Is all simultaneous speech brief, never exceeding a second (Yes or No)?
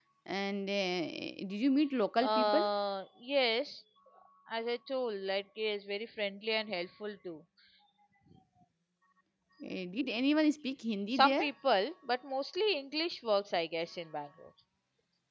Yes